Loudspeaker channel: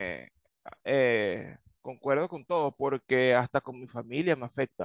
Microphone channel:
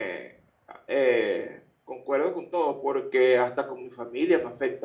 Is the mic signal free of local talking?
Yes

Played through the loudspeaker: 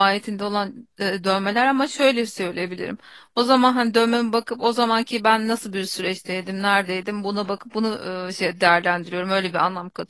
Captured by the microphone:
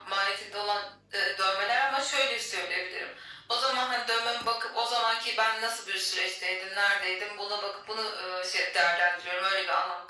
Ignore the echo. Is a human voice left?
No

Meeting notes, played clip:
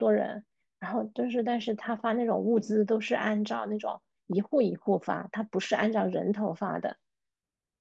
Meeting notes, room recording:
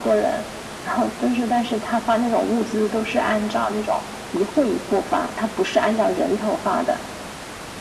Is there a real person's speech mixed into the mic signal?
No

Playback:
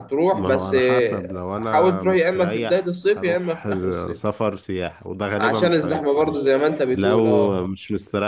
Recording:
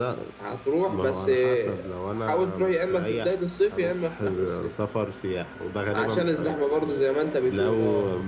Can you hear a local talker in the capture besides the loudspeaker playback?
No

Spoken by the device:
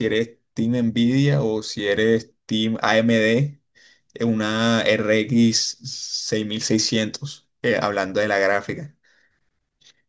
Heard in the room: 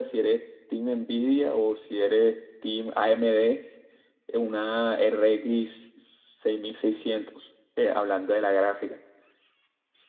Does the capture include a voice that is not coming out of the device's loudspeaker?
No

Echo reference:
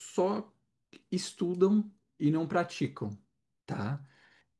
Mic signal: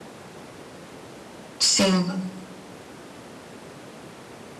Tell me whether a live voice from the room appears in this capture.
Yes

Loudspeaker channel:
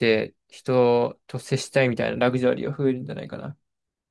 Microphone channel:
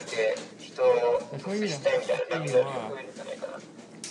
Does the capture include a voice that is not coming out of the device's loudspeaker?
Yes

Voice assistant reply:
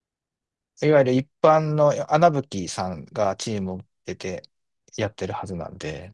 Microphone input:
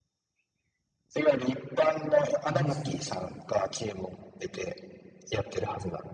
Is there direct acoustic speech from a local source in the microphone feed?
Yes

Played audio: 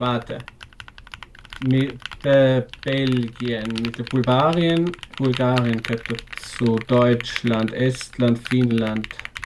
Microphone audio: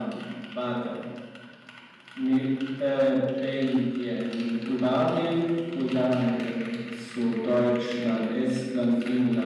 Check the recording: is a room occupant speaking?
No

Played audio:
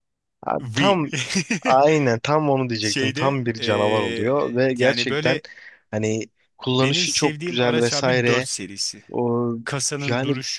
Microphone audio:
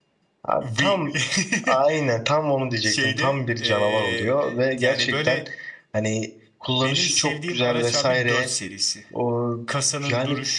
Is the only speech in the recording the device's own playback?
Yes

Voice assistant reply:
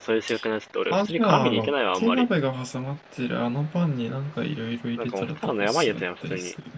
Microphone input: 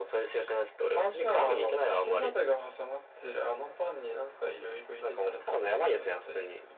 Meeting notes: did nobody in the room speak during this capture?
Yes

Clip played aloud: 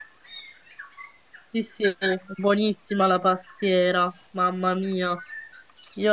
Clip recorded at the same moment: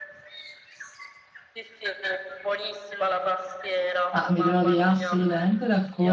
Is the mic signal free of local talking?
No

